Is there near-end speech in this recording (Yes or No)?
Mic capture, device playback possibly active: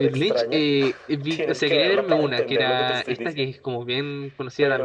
Yes